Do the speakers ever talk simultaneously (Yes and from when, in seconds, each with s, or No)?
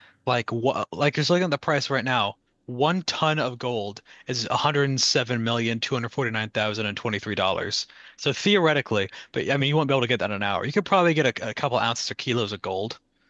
No